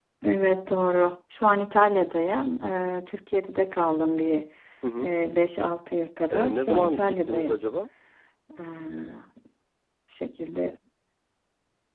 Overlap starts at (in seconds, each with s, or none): 6.3 s